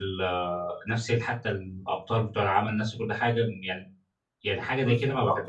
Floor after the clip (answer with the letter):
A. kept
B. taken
B